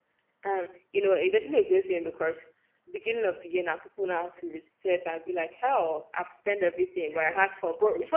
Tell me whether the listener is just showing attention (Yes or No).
Yes